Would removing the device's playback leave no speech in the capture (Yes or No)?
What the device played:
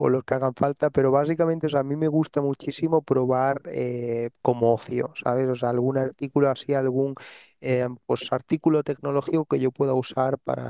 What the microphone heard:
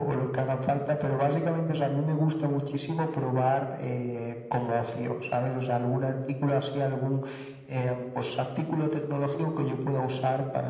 Yes